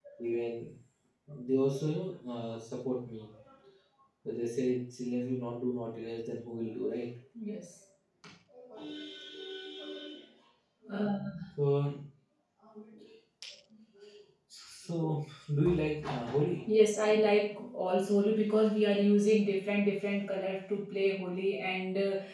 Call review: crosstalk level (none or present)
none